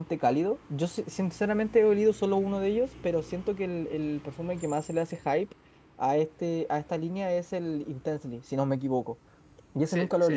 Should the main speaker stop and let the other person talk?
Yes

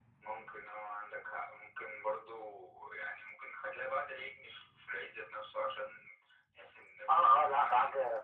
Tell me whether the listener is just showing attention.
No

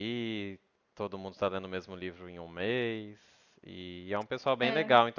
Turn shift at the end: No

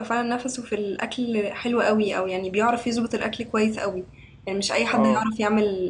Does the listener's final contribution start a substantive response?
No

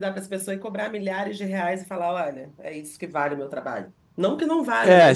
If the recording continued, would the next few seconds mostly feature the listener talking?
Yes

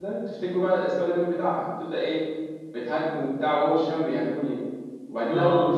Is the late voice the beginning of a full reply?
No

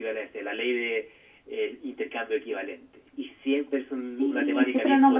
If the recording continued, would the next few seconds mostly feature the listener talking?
Yes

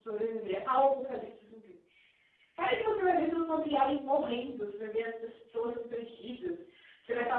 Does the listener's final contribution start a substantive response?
No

